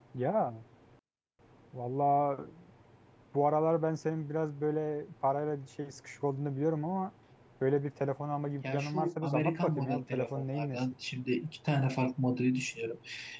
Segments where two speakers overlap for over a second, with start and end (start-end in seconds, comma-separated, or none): 8.7-10.8